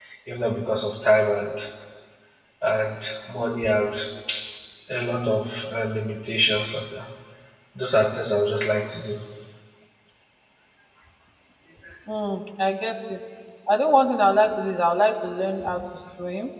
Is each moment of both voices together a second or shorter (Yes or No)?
Yes